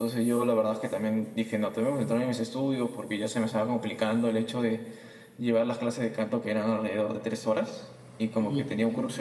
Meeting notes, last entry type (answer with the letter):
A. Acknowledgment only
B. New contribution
A